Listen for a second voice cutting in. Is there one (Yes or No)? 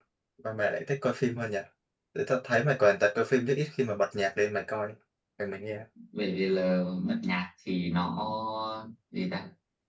No